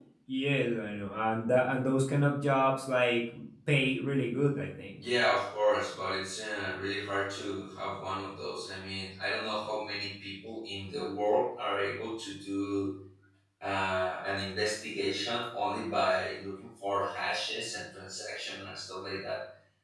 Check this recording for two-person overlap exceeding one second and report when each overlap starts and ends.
none

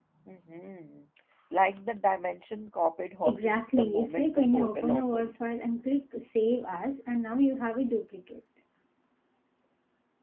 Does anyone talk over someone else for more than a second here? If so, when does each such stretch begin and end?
3.2-5.3

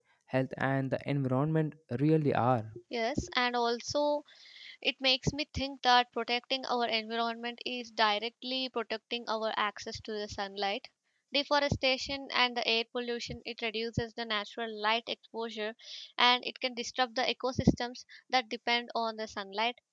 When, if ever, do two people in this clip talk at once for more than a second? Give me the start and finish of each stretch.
none

